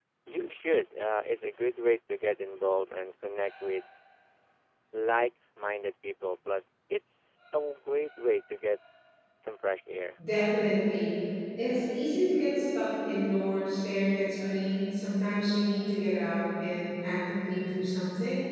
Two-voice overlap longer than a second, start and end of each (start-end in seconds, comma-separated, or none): none